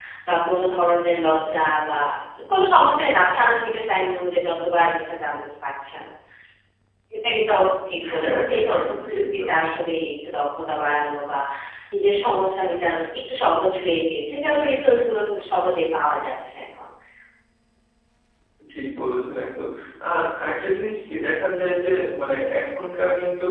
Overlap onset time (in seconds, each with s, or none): 8.0 s